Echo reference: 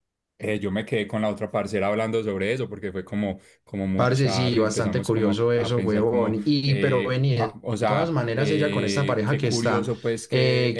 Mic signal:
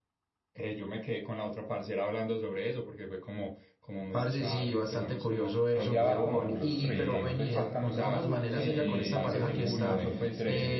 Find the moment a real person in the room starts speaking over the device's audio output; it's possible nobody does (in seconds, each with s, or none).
5.7 s